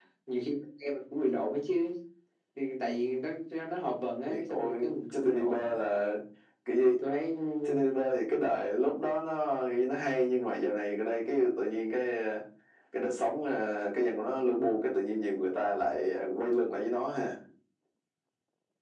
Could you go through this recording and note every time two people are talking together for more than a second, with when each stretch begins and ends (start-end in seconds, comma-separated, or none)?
4.3-5.8